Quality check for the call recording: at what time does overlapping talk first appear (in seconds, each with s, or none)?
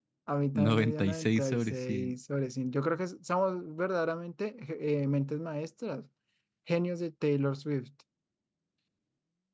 0.6 s